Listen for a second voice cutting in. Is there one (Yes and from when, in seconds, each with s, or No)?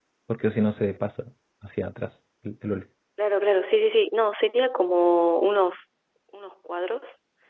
No